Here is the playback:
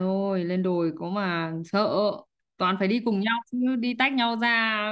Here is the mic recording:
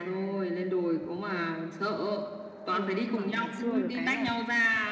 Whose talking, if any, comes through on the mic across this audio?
both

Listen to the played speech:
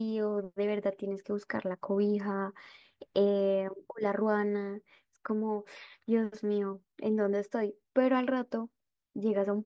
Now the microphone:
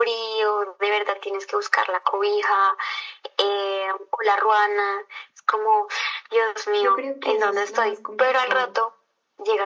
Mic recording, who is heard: both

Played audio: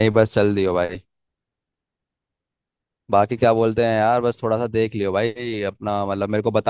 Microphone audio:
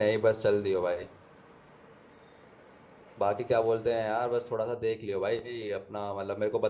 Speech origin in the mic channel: echo only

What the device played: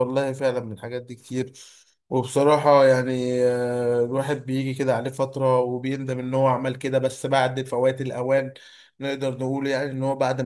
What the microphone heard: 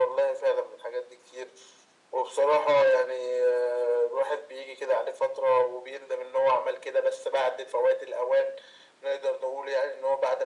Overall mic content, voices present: echo only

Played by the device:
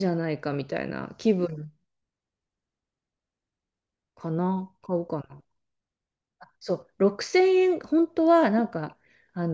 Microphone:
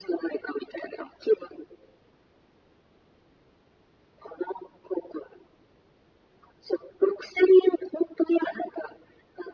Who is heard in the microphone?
echo only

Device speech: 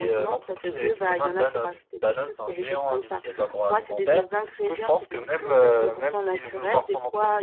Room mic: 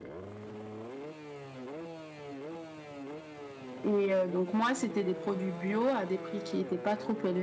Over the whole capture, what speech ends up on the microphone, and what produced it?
user only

